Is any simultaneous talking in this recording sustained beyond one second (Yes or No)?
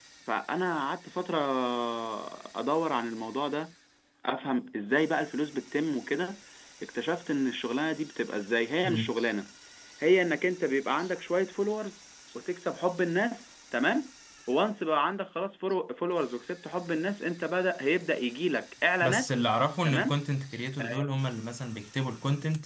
No